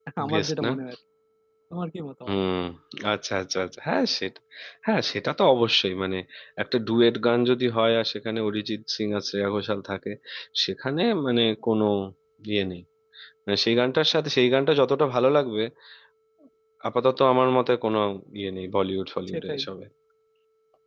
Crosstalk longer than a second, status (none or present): none